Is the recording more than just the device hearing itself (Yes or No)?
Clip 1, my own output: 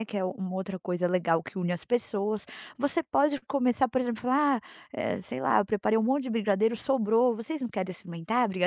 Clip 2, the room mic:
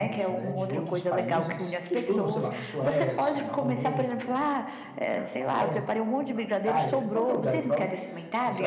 Yes